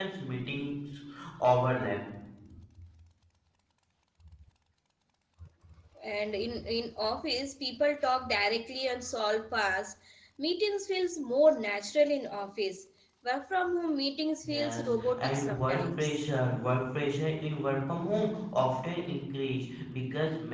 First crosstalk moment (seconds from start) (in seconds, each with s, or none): 14.4 s